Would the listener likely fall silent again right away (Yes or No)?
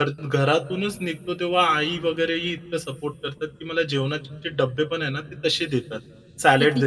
Yes